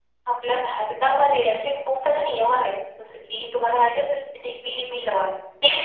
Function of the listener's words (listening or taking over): taking over